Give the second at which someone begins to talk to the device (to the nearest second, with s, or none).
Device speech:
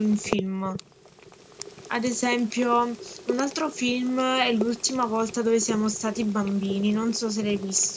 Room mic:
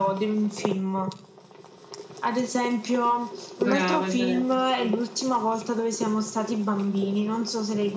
4 s